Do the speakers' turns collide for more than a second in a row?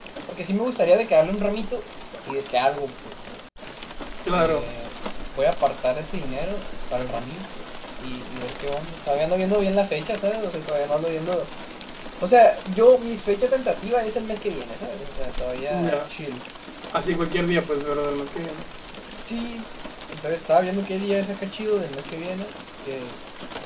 No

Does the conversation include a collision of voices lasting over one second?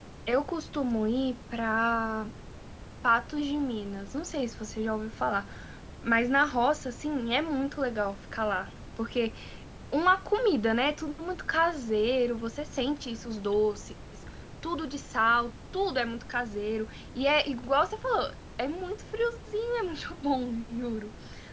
No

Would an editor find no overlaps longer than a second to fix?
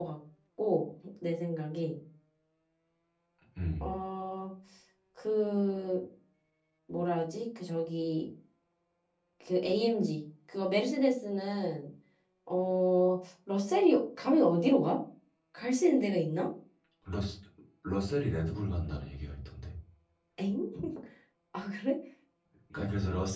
Yes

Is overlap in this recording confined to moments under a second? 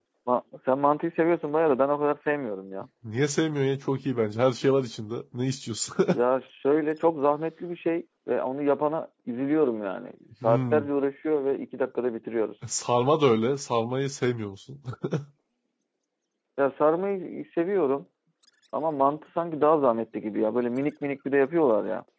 Yes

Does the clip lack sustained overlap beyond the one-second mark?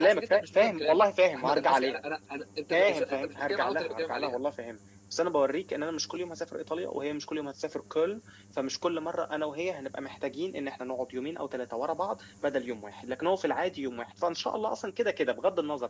No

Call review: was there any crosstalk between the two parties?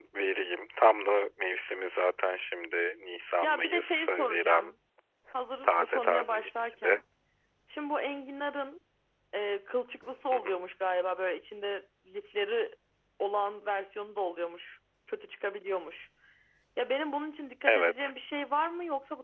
Yes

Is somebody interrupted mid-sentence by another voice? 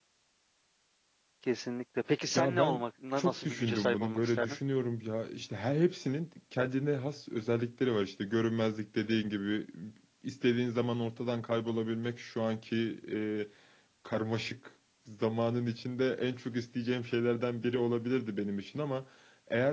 Yes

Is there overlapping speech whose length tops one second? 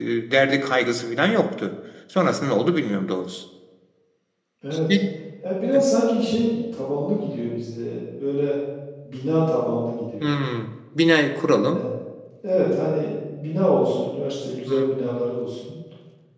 No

